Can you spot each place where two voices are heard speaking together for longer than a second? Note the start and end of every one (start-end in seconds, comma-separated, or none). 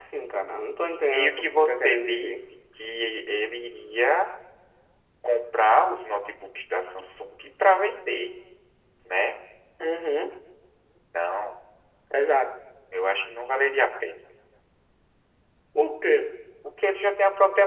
1.1-2.4